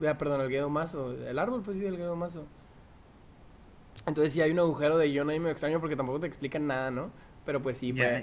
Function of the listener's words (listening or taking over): listening